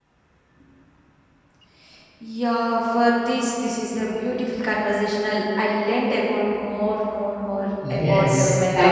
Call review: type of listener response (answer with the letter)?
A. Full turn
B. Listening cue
A